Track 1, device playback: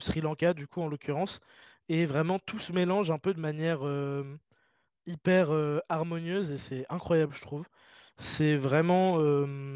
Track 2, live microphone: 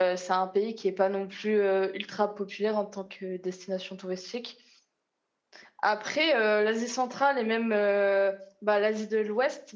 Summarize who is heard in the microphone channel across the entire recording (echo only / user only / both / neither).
user only